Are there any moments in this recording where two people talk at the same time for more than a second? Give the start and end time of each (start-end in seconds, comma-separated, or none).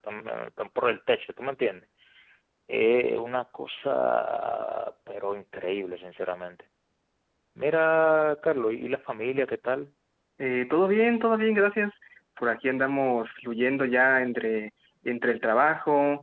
none